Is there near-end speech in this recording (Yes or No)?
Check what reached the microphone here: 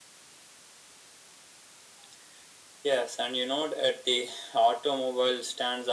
No